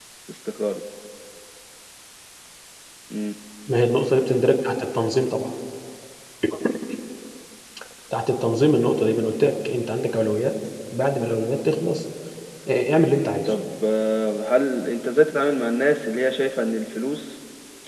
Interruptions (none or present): none